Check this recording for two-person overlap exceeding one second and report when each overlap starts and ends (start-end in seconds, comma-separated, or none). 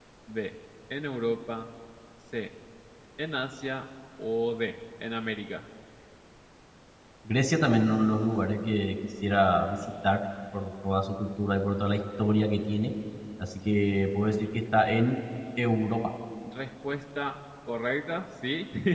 none